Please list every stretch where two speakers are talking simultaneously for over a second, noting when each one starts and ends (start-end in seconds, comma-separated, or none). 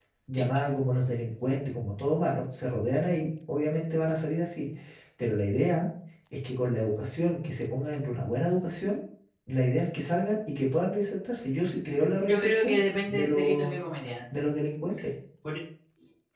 12.2-13.7